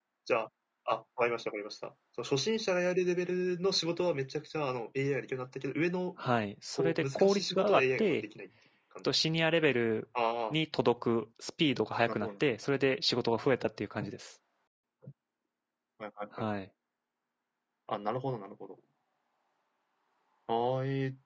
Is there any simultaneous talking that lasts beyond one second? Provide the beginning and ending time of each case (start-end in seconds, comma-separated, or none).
6.8-8.2